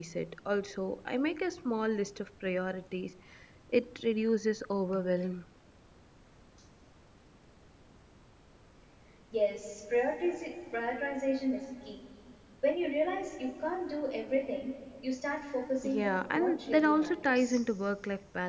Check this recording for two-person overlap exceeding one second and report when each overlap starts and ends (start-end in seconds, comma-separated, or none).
15.9-17.6